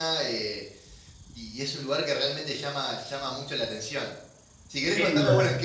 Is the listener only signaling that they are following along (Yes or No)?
Yes